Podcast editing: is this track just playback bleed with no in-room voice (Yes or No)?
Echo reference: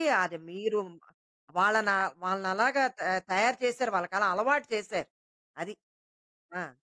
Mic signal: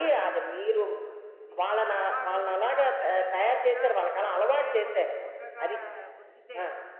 No